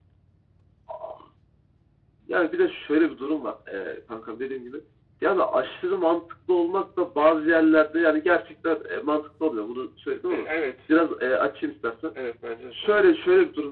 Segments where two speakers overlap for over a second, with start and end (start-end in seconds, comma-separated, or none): none